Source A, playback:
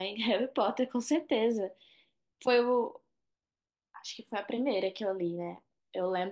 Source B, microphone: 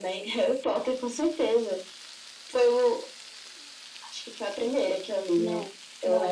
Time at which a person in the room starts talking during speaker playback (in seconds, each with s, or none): 5.4 s